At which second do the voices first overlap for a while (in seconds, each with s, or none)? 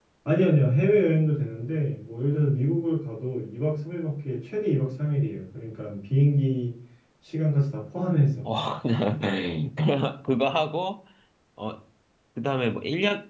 none